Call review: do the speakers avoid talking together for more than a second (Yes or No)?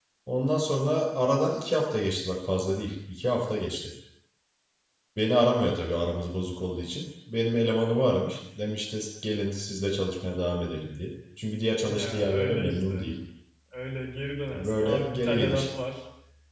No